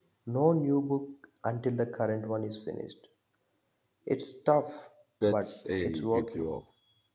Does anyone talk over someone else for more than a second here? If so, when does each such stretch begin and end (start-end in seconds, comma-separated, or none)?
5.2-6.4